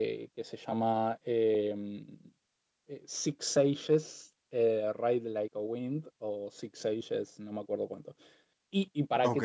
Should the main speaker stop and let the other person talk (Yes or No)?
No